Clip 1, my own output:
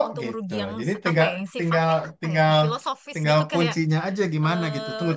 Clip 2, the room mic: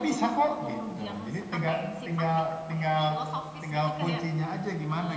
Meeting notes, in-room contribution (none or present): none